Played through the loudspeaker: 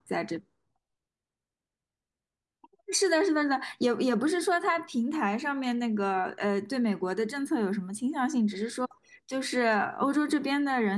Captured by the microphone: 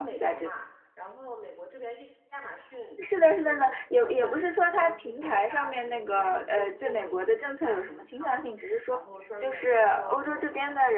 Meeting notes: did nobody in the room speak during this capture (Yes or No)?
No